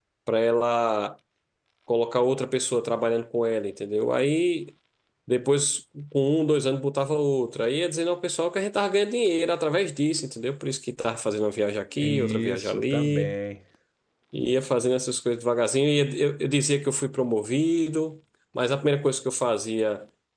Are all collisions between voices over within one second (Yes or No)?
No